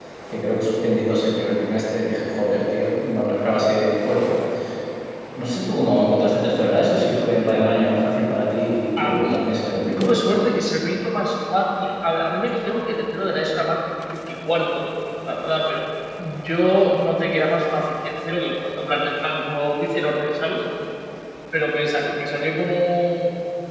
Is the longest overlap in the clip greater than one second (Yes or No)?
No